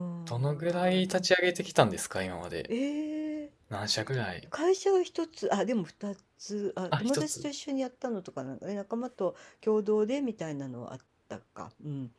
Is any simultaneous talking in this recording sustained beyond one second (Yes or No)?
No